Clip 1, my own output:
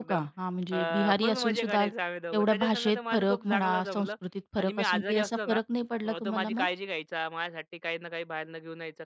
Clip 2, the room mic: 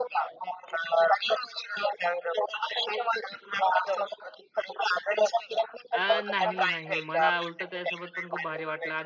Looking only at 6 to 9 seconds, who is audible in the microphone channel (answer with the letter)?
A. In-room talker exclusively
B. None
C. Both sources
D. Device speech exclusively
C